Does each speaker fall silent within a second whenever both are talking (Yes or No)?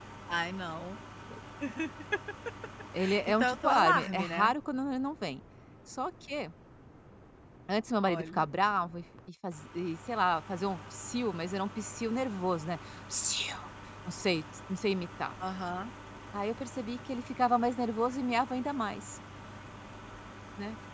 No